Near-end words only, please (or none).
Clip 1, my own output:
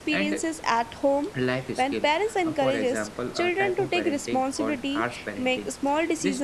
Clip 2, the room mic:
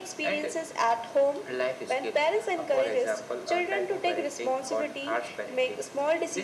none